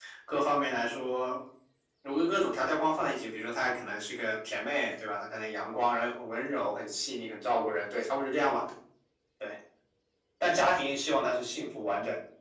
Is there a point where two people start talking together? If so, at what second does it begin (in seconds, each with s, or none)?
none